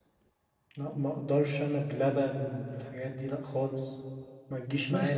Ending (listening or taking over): taking over